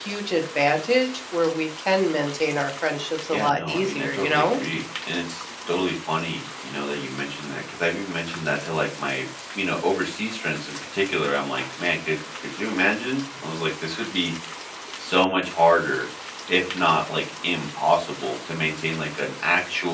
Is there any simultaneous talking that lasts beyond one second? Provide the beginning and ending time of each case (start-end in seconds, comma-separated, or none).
3.3-4.6